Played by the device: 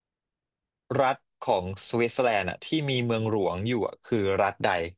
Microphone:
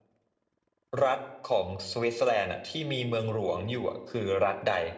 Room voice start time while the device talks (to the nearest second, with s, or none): none